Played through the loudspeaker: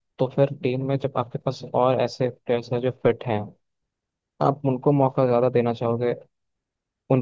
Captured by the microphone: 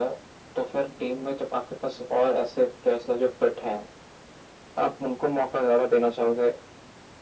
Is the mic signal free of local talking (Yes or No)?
Yes